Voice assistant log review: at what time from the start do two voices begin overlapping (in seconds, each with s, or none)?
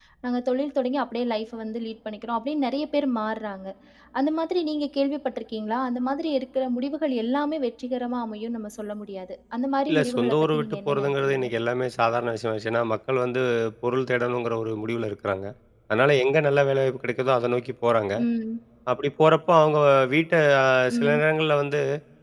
9.9 s